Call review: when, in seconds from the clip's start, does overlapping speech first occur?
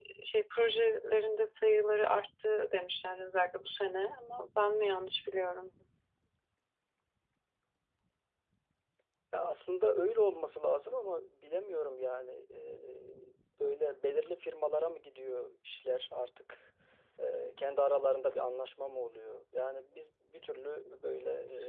none

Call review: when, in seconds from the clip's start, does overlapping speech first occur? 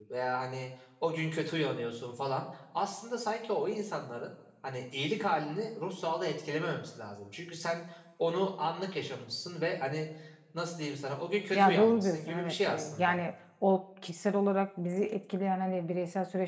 11.5 s

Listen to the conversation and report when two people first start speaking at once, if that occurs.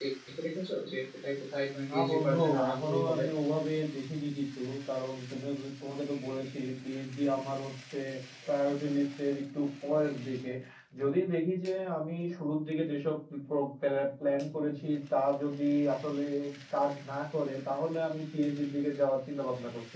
1.9 s

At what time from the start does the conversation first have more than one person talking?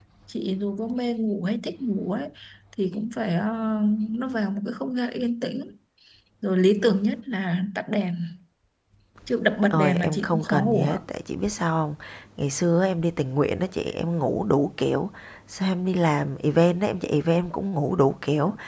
9.7 s

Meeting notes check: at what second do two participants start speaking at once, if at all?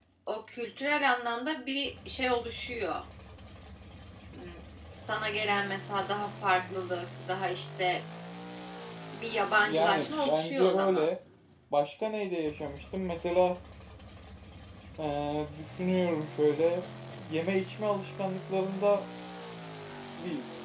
9.6 s

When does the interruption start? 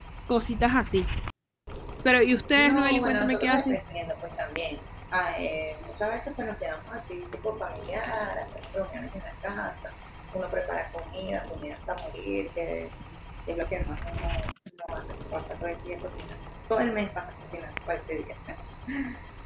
2.6 s

